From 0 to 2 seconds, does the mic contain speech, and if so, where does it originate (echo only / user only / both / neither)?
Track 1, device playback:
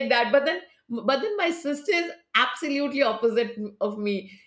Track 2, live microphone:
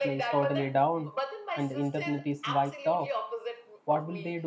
both